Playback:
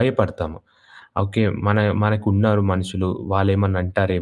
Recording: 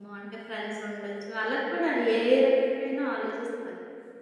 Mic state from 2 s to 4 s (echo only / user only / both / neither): user only